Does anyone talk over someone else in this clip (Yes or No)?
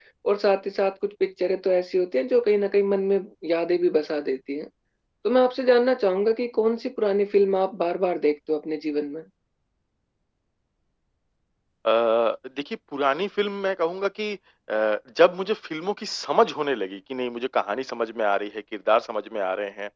No